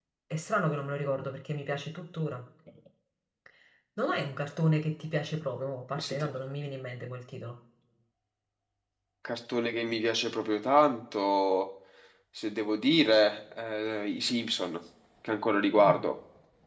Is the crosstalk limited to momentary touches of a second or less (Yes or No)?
Yes